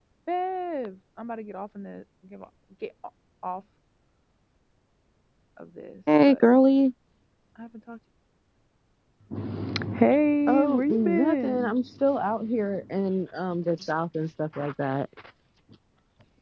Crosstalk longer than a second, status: present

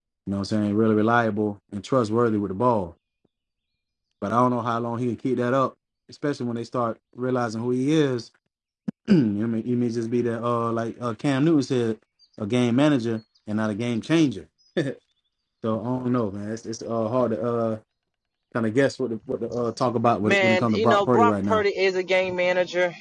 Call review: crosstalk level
present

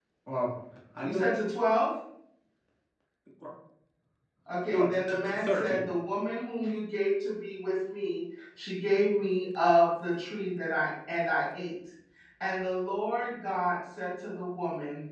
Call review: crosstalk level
present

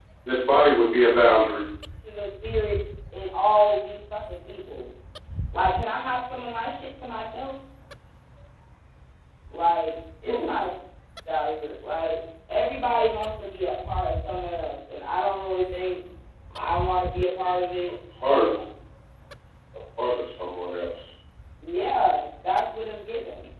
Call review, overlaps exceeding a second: none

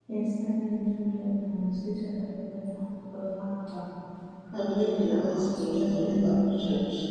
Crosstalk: present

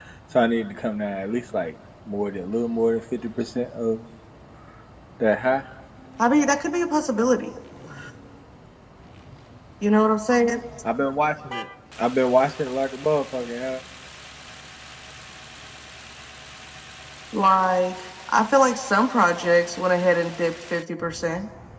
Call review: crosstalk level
none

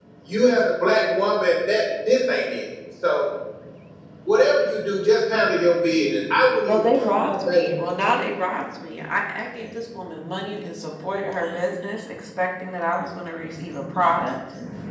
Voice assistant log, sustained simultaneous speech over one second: present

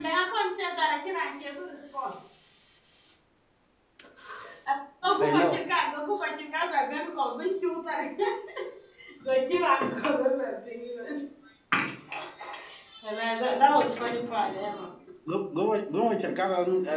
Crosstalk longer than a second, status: none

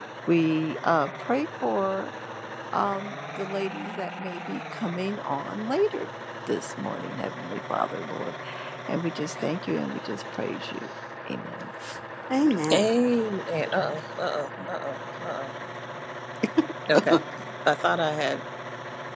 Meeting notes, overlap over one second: none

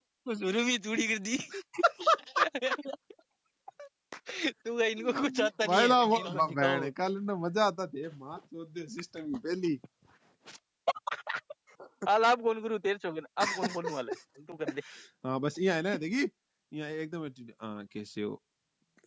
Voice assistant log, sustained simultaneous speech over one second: present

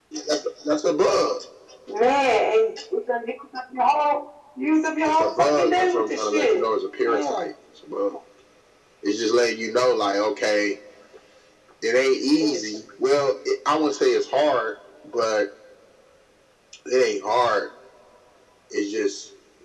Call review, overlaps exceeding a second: present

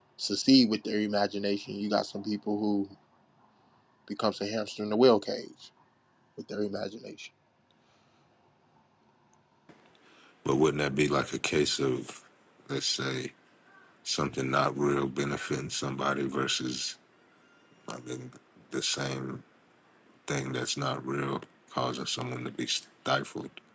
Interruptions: none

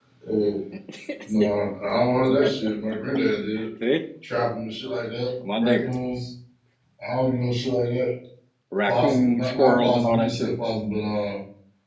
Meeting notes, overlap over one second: present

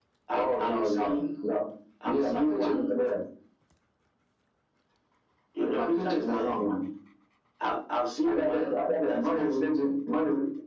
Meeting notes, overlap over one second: present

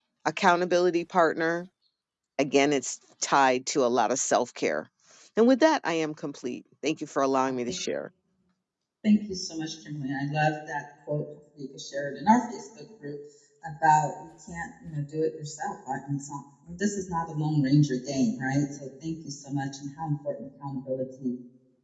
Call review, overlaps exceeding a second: none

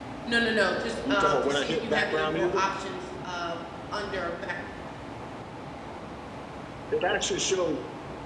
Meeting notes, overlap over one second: present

